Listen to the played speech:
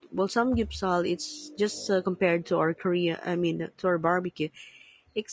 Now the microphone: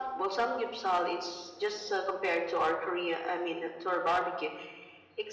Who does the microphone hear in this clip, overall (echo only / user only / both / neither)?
echo only